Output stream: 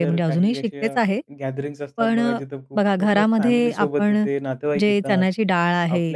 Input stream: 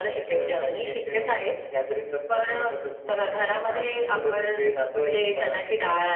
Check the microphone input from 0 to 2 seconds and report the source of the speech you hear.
echo only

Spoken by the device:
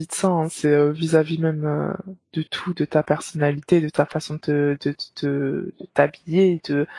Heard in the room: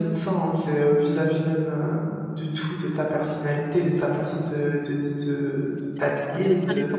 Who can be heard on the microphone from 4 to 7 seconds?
both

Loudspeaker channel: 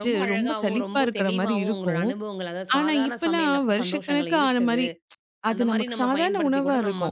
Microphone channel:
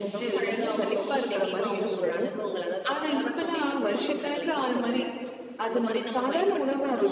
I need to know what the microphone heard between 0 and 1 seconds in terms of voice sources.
echo only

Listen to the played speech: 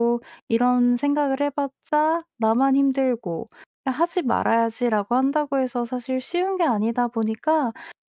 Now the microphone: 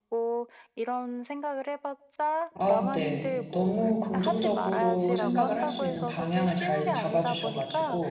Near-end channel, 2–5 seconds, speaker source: both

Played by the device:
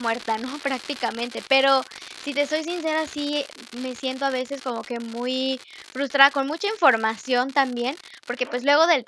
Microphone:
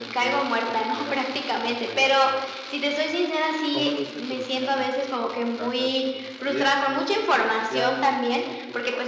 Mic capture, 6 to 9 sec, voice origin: both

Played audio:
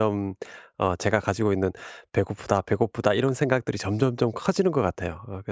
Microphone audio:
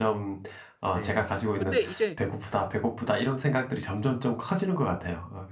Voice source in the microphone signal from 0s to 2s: both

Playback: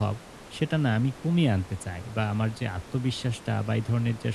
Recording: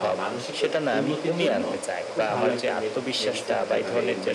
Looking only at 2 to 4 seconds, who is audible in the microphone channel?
both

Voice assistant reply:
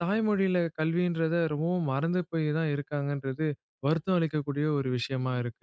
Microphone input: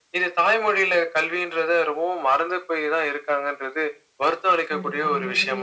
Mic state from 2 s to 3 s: echo only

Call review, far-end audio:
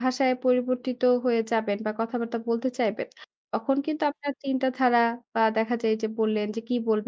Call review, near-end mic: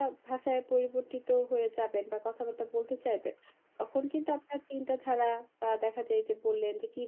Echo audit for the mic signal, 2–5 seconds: echo only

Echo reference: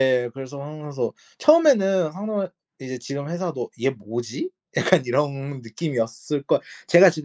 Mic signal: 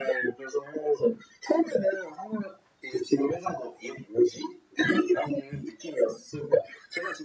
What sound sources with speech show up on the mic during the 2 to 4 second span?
echo only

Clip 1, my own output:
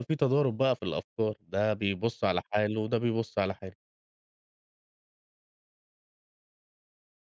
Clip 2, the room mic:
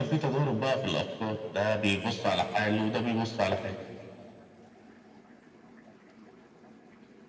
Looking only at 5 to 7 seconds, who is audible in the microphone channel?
neither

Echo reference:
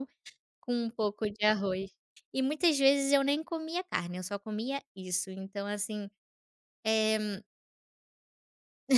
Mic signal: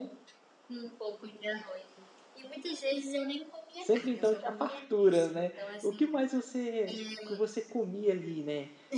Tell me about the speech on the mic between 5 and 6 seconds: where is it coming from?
both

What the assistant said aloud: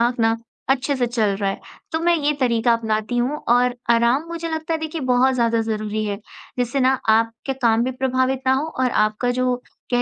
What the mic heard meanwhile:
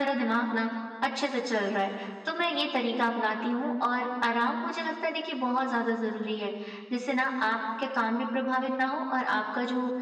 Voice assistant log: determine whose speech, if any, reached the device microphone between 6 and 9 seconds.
echo only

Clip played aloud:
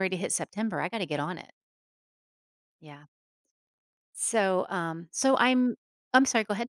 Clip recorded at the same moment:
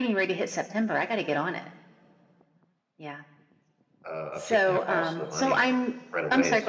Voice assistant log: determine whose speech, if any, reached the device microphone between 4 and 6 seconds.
both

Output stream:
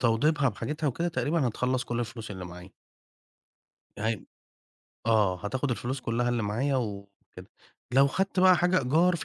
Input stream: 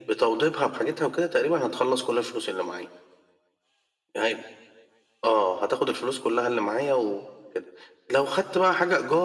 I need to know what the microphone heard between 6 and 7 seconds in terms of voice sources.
echo only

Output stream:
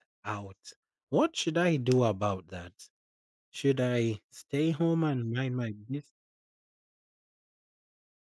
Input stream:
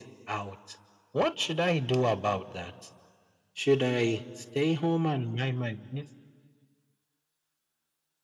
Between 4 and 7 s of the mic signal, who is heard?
echo only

